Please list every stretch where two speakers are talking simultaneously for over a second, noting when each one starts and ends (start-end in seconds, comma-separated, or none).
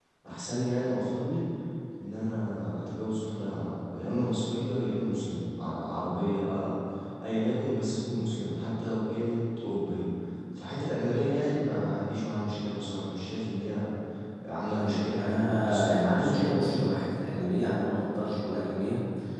14.7-16.9